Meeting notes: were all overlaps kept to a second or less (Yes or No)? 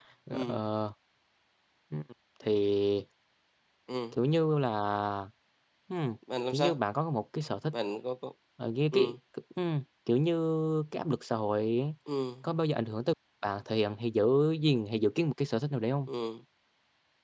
Yes